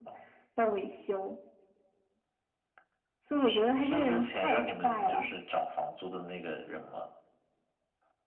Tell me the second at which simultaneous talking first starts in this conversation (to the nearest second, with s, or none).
3 s